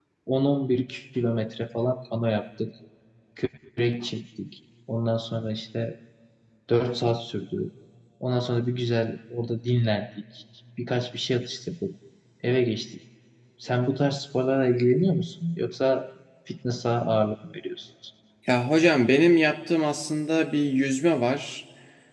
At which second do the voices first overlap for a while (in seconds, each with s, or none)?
none